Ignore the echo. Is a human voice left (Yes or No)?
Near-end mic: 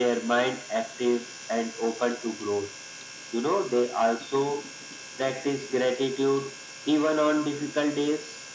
No